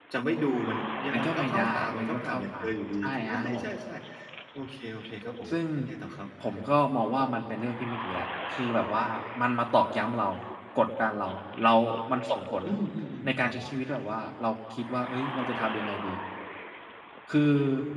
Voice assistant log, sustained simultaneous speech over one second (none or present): present